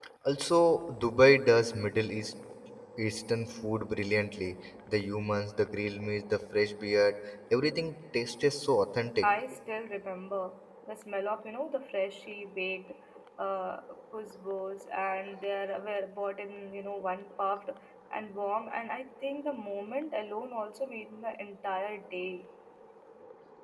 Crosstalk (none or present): none